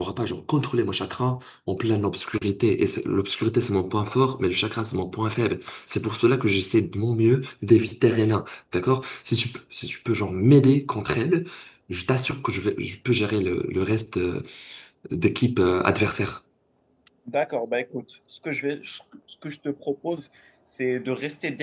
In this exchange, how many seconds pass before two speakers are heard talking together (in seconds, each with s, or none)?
none